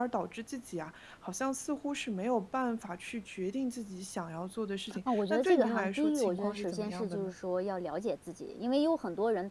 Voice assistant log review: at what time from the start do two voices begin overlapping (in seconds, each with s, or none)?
4.9 s